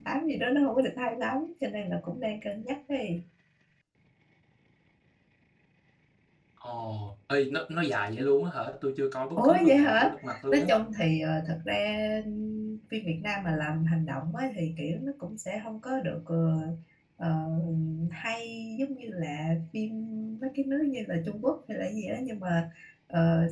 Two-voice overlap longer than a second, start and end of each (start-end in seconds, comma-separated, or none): 9.4-10.7